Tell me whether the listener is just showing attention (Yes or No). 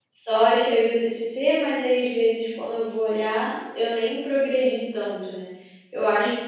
Yes